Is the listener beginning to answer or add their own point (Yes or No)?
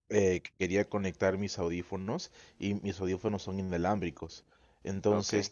No